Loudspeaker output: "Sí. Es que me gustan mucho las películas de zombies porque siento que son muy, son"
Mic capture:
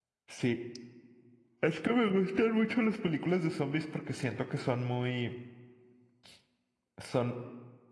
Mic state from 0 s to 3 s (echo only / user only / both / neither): echo only